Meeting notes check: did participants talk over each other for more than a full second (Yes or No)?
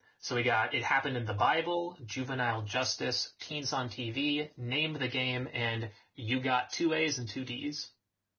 No